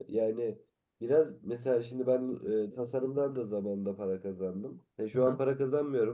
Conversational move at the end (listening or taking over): listening